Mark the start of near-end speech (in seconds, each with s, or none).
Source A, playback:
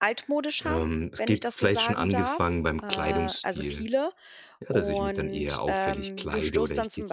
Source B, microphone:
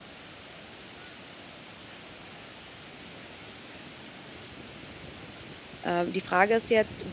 5.8 s